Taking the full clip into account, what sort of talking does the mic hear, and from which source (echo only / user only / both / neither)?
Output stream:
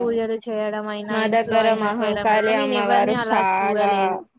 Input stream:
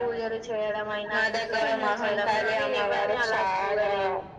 both